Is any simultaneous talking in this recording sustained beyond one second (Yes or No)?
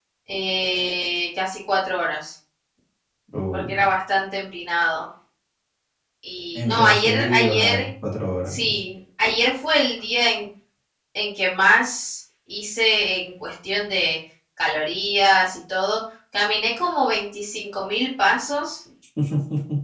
Yes